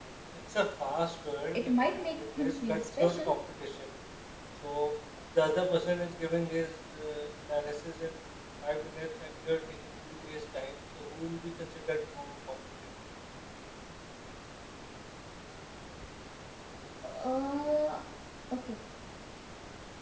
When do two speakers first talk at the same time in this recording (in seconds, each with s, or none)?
1.6 s